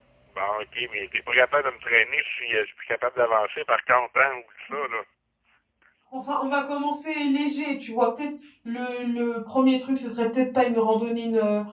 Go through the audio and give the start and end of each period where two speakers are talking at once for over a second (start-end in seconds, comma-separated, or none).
none